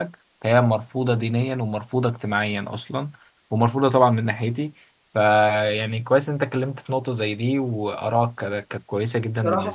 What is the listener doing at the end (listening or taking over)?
taking over